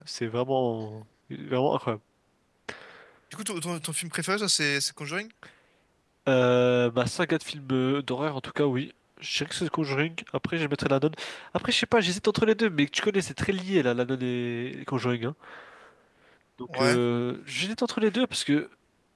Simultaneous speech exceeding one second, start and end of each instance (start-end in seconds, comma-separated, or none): none